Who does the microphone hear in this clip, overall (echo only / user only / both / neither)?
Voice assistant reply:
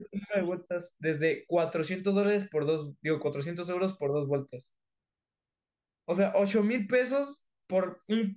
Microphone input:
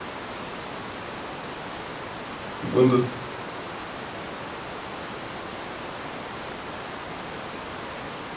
user only